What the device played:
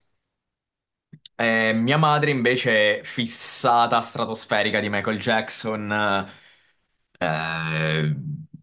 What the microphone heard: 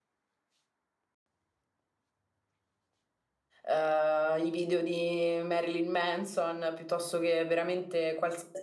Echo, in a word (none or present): none